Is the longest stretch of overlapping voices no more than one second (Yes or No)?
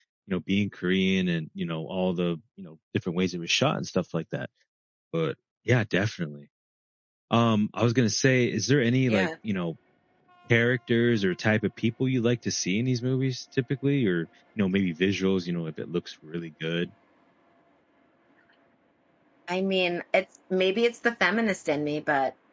Yes